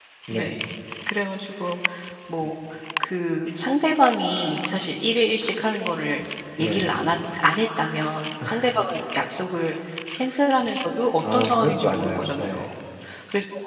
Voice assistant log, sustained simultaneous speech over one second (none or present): present